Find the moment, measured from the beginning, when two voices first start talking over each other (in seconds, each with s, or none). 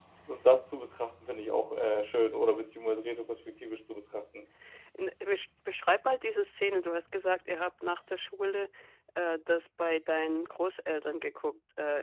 none